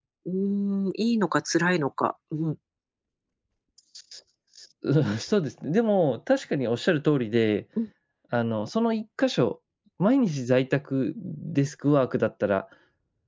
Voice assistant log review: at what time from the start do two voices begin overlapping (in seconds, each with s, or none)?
none